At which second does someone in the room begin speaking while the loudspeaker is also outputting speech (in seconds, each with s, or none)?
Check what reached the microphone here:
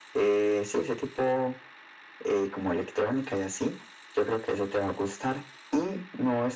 none